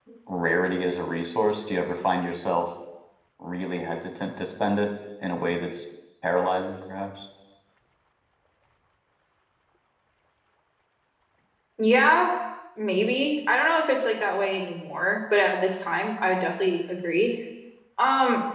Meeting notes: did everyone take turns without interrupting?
Yes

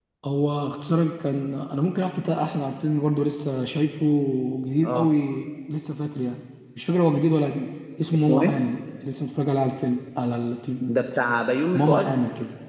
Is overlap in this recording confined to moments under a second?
Yes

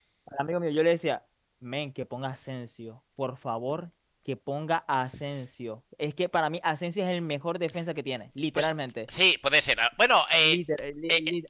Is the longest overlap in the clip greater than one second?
No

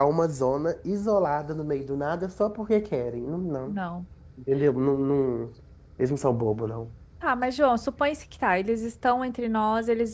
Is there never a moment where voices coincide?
Yes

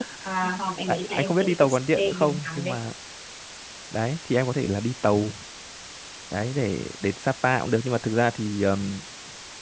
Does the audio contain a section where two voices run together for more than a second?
Yes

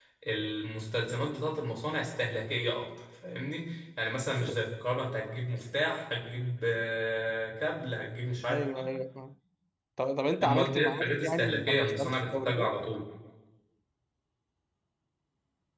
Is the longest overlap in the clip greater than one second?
Yes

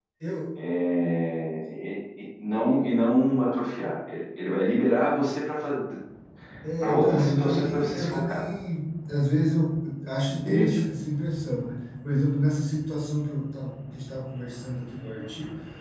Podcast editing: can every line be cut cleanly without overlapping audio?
No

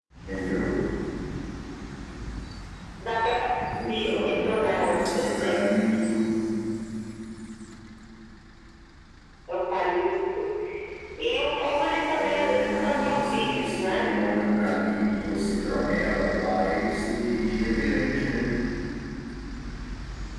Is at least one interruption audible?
Yes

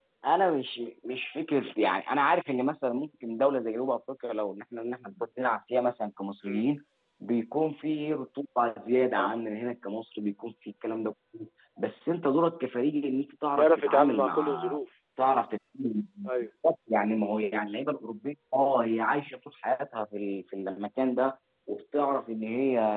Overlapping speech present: Yes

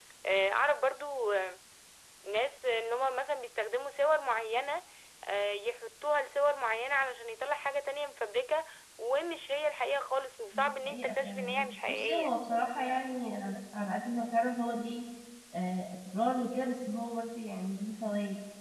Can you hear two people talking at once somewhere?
Yes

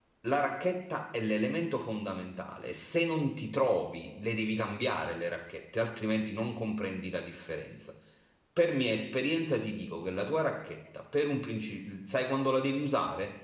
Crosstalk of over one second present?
No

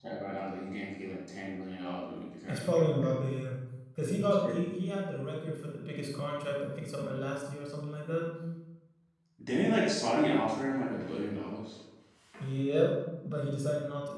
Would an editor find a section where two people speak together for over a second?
No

